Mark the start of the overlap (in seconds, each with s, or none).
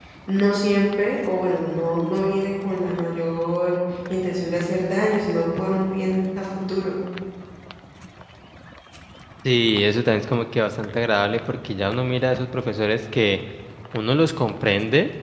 none